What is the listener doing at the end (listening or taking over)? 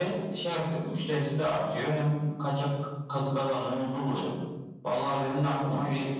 listening